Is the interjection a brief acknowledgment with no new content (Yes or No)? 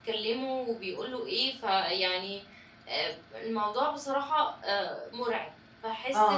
No